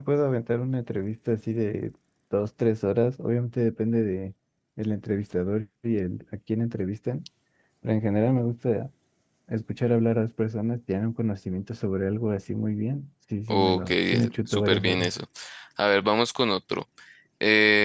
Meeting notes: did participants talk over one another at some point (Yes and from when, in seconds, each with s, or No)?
Yes, from 13.5 s